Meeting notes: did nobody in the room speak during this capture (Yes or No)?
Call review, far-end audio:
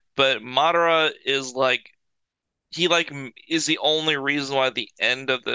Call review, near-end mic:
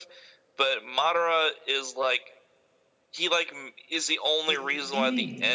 No